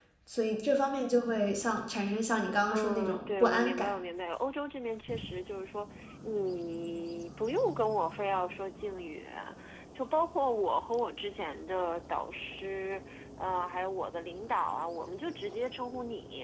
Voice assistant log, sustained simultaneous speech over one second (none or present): present